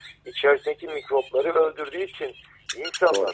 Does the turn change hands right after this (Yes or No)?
No